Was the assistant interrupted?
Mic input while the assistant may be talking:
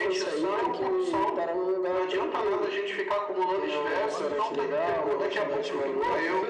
Yes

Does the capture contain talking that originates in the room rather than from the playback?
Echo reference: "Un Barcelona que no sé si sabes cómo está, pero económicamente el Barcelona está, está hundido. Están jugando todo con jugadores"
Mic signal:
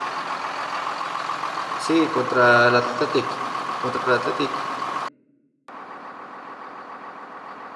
Yes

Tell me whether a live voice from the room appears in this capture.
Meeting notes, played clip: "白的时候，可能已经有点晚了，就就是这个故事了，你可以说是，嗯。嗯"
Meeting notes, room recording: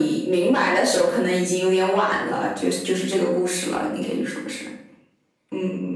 No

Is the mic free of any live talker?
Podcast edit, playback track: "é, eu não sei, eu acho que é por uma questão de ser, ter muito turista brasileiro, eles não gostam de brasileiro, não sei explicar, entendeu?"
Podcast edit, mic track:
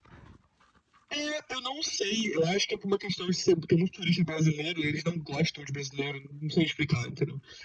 Yes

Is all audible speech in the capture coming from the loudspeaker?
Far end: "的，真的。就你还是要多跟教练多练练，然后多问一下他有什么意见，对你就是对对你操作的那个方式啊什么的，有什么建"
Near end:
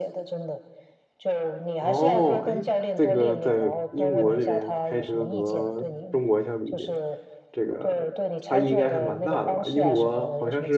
No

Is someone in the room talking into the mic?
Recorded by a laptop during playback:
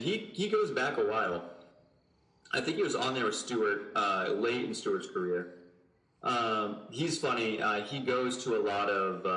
No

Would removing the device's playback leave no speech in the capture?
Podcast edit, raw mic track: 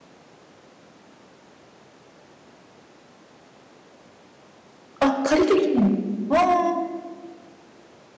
No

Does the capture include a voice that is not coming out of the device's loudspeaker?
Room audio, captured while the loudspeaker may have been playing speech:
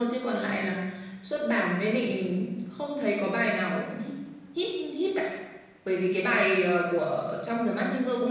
No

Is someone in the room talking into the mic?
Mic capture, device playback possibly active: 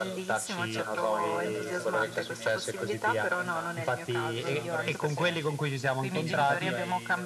Yes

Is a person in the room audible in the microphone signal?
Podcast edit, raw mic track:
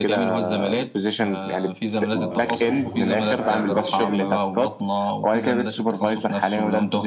Yes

